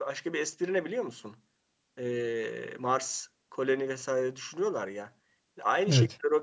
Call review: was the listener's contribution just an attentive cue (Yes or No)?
Yes